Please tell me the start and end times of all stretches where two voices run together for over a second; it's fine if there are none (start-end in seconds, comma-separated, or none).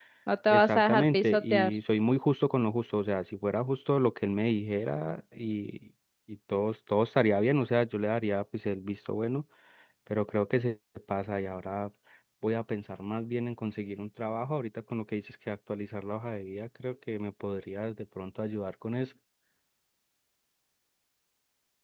0.5-1.8